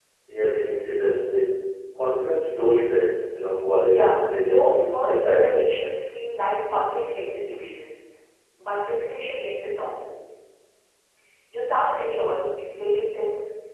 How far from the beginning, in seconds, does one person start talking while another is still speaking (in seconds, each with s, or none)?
3.9 s